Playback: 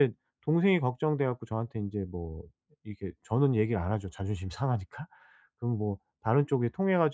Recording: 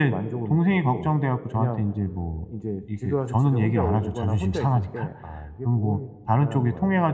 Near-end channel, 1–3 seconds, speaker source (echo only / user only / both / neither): both